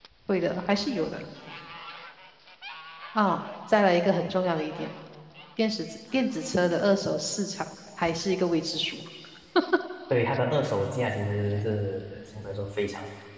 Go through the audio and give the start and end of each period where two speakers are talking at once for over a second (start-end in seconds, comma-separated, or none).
none